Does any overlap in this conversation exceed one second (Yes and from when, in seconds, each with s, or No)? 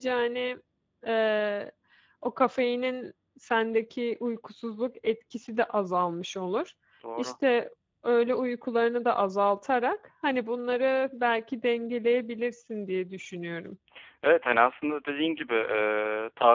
No